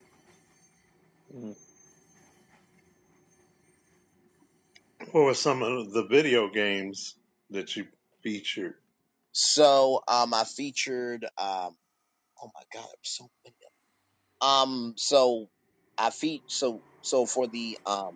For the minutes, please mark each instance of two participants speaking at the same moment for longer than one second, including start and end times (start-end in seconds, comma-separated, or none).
none